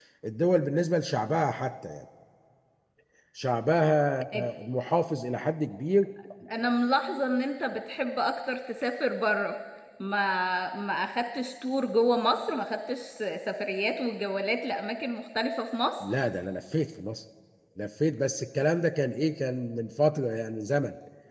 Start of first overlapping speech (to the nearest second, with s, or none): none